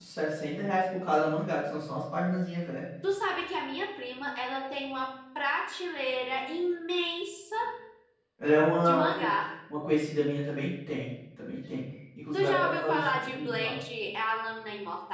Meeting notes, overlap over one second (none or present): present